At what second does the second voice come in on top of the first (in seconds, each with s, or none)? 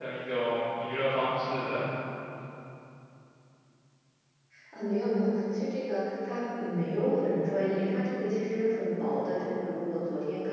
none